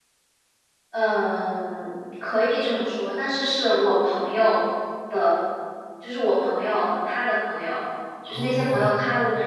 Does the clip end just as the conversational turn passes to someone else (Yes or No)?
No